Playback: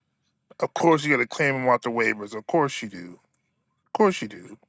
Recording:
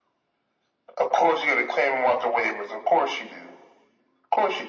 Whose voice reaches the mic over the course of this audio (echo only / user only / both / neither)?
echo only